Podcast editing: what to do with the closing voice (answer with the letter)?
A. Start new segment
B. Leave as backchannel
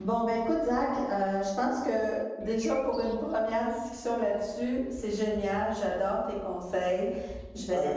B